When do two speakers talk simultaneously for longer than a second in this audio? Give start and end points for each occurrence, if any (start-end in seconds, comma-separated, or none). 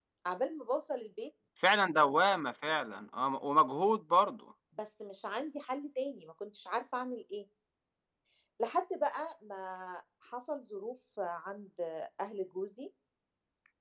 none